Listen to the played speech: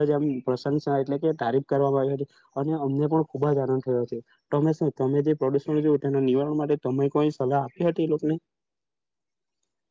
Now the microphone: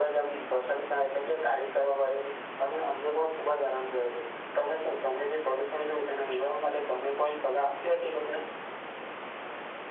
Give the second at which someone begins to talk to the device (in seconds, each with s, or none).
none